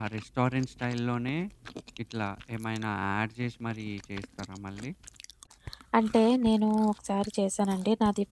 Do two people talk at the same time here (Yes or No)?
No